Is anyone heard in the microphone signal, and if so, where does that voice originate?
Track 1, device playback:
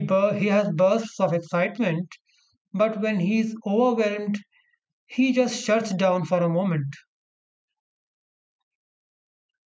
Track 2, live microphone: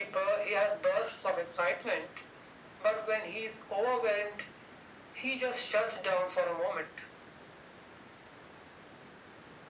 echo only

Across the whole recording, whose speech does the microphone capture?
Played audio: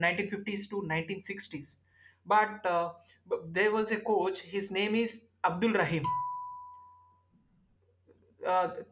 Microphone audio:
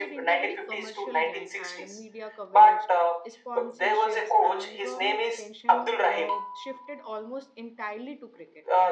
both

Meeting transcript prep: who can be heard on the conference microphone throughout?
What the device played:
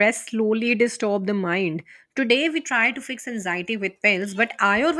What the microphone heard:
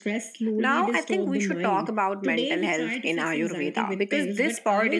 both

